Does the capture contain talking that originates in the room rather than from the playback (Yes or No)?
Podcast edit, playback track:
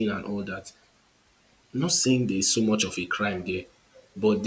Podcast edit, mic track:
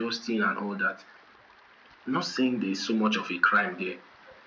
No